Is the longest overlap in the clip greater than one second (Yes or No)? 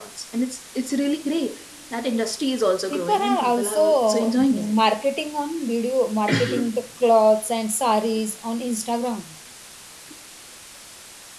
Yes